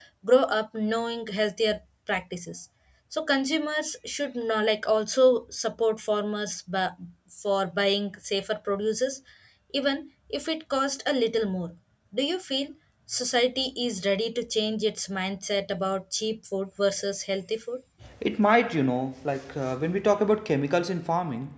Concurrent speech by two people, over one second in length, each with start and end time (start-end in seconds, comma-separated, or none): none